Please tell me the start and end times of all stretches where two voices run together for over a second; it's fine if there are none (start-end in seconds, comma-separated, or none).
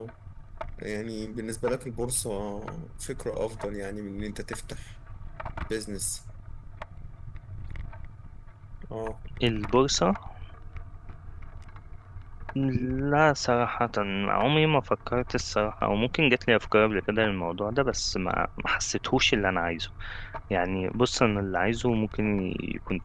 none